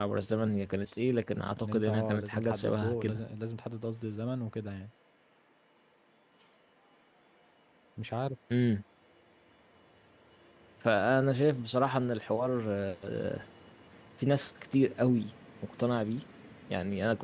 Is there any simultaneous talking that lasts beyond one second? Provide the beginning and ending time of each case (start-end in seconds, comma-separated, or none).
1.6-3.2